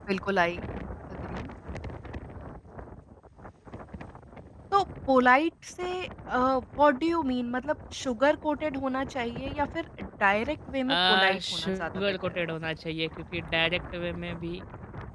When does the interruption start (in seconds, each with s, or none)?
10.9 s